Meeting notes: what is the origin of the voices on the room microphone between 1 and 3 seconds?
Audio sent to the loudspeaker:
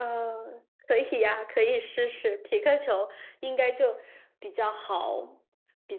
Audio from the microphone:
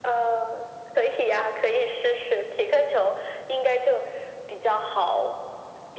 echo only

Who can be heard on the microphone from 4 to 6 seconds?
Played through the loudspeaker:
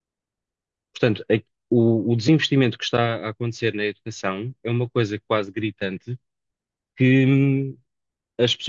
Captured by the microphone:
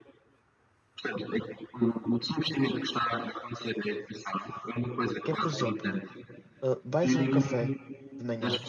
both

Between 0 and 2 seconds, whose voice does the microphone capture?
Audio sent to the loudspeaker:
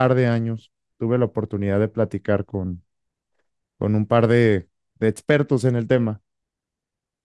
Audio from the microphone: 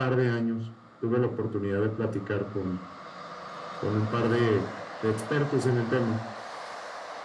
echo only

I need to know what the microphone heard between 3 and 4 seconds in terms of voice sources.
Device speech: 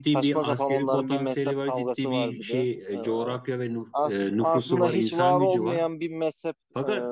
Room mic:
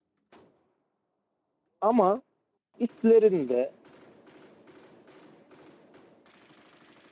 user only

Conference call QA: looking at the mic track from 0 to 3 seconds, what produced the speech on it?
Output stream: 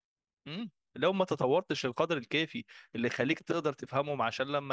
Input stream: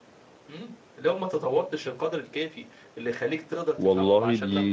echo only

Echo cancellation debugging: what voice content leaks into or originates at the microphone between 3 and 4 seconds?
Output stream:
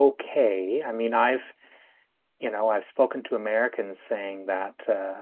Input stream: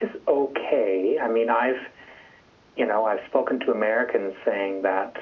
echo only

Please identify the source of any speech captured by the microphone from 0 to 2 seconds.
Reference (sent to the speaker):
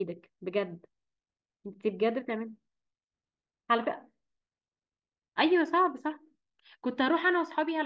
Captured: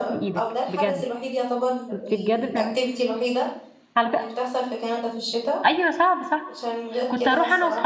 both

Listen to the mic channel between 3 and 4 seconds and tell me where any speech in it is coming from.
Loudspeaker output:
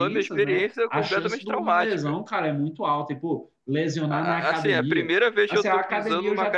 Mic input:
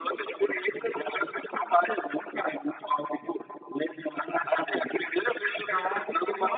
echo only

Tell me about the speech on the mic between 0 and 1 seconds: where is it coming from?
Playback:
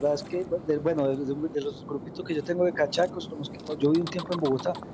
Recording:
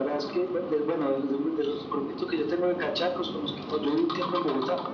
echo only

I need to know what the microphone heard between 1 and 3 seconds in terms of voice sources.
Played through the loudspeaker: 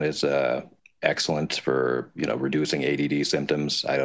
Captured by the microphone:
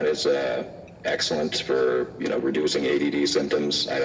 echo only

